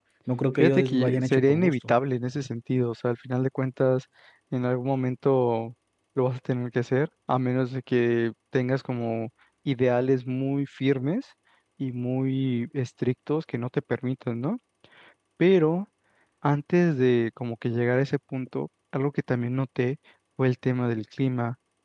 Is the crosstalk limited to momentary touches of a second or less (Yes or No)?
No